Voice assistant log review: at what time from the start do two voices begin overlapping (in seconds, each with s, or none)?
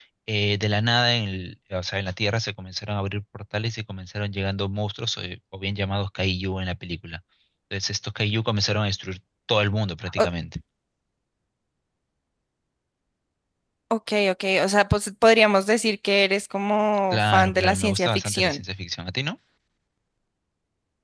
17.1 s